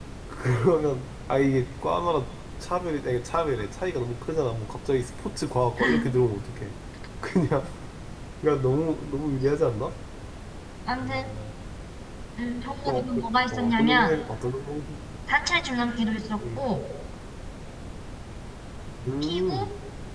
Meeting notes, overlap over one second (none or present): present